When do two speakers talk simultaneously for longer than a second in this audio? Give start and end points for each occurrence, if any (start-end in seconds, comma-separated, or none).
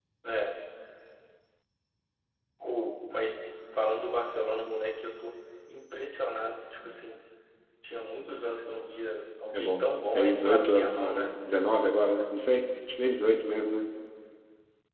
9.5-11.3